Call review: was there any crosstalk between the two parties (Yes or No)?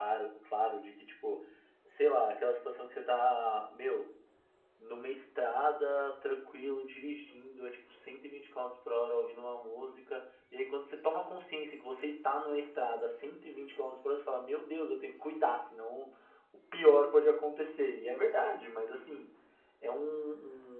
No